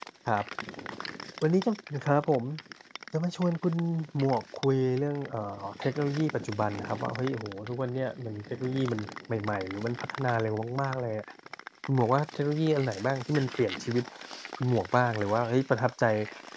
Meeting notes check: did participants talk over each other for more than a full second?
No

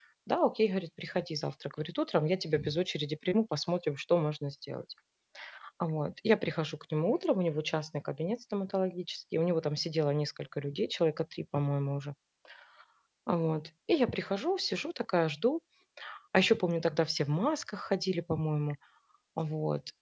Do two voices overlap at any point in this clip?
No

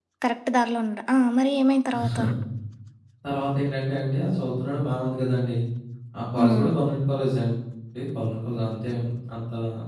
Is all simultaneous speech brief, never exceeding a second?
Yes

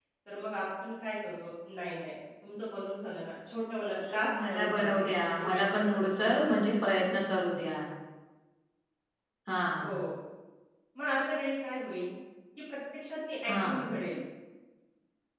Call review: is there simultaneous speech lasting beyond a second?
Yes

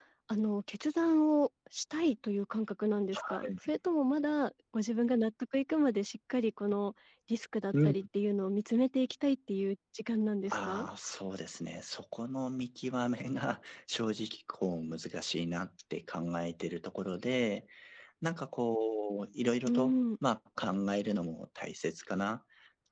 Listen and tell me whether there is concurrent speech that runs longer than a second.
No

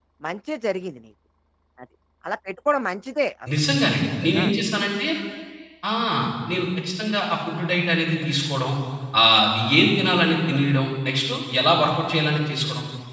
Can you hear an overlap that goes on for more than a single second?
No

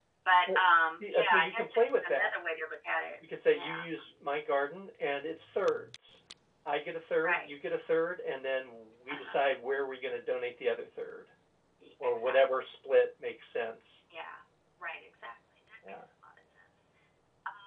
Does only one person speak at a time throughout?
No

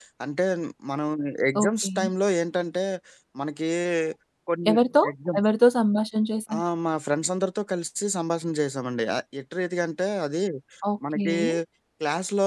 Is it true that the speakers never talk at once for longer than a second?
Yes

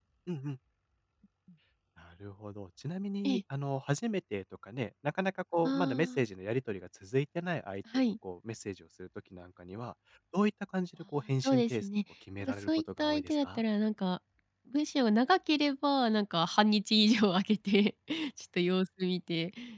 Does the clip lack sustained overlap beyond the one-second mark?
No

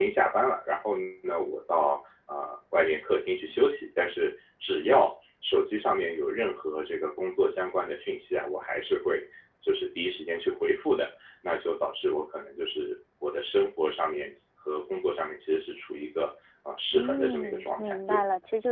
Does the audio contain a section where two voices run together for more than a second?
Yes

